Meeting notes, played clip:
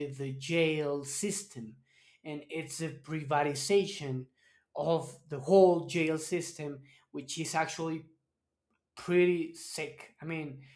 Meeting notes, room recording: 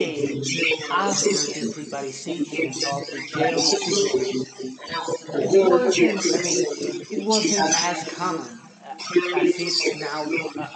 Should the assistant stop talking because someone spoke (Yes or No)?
Yes